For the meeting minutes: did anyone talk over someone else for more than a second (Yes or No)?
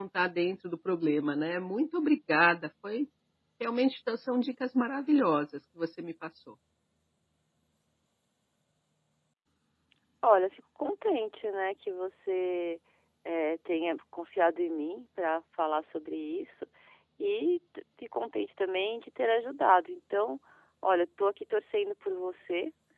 No